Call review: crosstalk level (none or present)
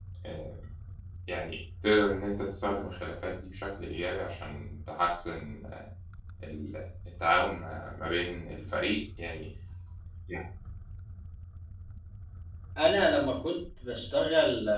none